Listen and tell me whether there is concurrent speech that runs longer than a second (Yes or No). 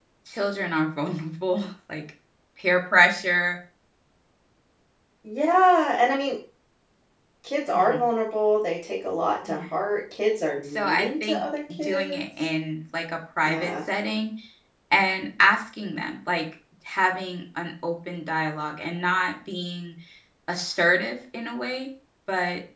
Yes